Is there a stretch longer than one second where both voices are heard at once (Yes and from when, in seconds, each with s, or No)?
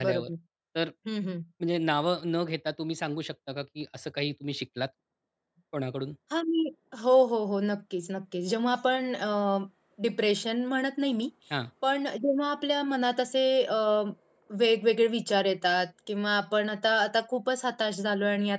No